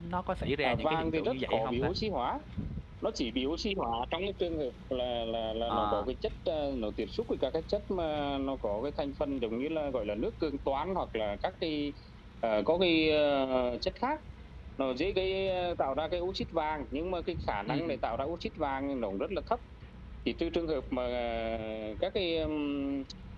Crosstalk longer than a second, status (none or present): present